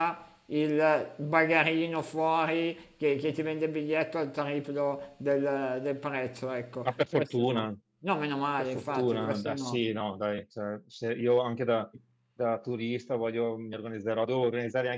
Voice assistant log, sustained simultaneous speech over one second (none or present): present